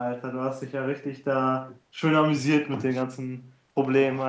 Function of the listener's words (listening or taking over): taking over